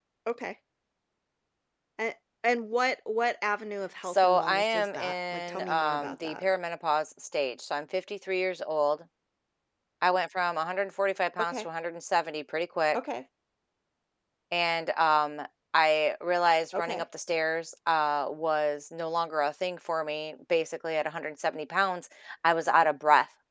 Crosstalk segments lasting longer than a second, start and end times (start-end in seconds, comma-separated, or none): 4.0-6.4